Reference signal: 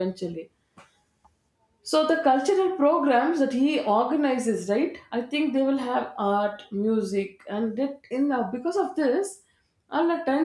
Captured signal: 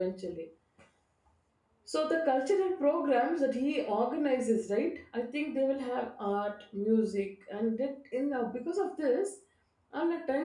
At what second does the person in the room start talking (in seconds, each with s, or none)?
none